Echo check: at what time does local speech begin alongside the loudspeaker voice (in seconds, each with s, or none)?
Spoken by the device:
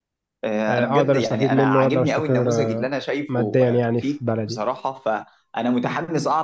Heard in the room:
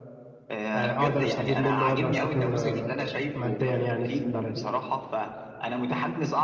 4.2 s